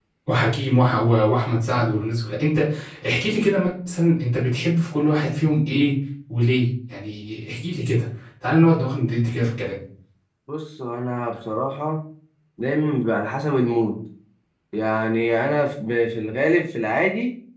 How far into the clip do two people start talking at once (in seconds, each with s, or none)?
none